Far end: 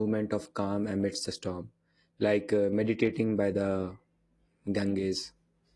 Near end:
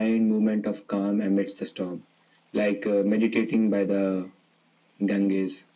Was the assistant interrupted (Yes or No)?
No